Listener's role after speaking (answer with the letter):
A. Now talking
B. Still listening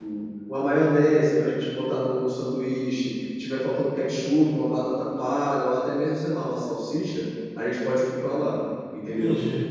A